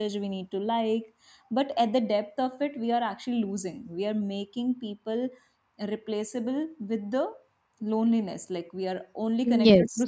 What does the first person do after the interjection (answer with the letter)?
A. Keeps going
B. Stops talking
A